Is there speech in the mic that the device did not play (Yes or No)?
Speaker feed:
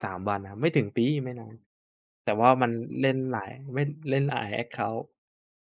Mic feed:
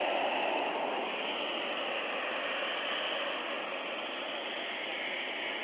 No